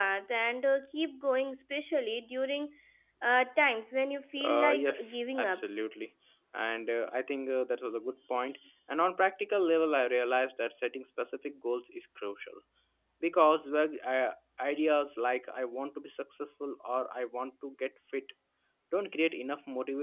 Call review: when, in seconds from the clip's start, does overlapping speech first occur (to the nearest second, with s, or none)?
4 s